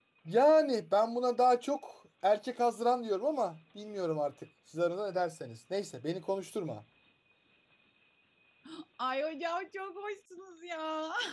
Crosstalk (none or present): none